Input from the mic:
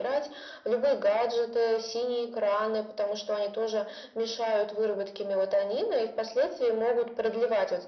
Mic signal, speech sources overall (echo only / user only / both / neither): echo only